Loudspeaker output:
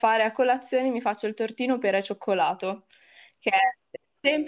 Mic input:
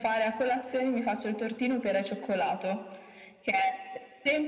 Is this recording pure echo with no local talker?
Yes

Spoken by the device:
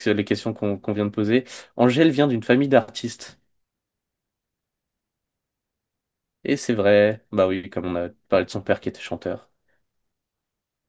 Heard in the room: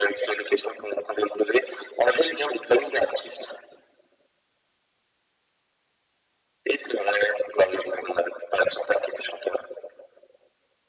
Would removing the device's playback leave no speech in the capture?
Yes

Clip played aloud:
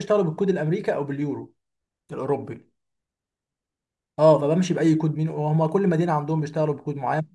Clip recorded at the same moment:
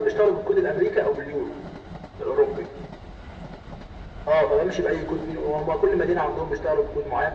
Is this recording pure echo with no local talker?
Yes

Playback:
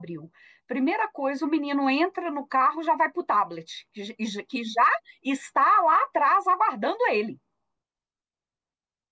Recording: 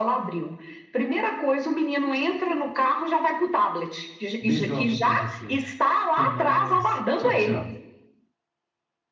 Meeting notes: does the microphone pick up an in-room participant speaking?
Yes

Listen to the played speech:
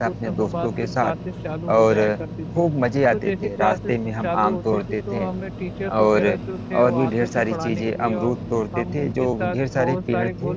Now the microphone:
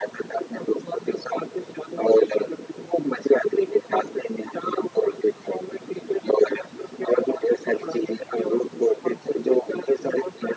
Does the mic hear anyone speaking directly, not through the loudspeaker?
No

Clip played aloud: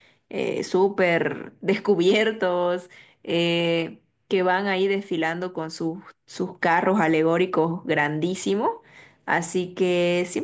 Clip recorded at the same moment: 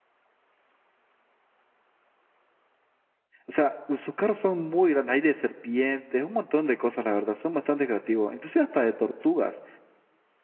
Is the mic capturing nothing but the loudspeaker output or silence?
No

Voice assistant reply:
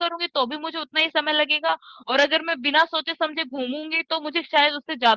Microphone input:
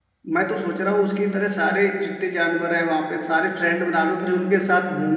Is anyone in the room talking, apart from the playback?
Yes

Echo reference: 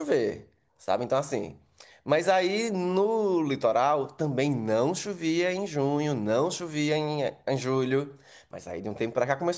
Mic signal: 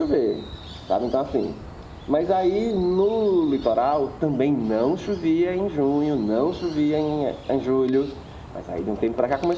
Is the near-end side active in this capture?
No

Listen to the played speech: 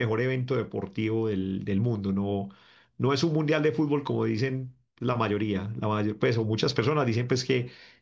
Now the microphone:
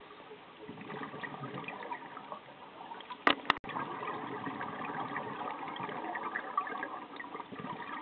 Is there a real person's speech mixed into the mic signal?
No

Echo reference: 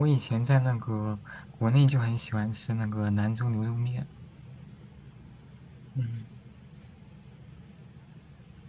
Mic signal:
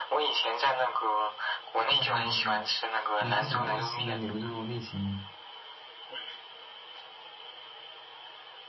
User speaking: Yes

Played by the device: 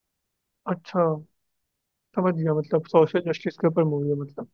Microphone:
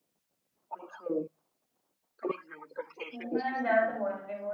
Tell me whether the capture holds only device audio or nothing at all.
No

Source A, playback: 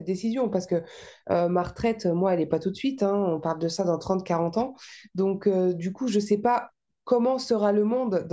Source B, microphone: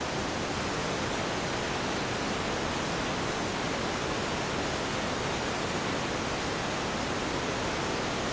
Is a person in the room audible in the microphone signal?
No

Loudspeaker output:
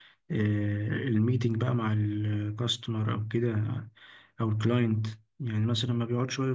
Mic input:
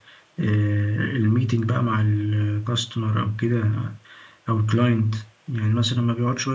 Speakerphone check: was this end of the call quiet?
Yes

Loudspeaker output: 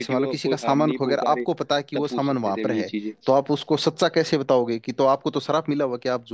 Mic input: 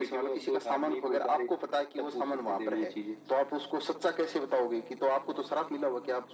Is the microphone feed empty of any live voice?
Yes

